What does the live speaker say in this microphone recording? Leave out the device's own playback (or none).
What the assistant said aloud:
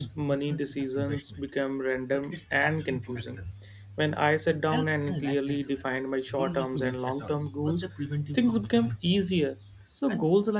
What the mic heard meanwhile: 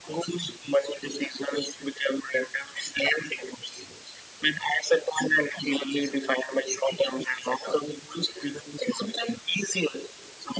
none